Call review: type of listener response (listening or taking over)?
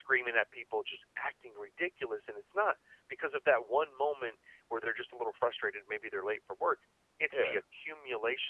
listening